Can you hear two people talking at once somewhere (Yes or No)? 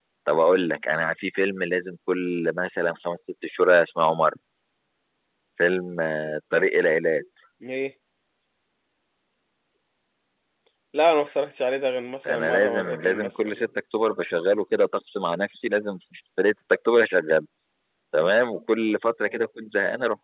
Yes